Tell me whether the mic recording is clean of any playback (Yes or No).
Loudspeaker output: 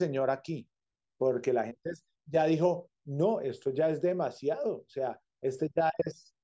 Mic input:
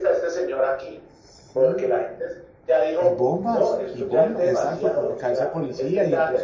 No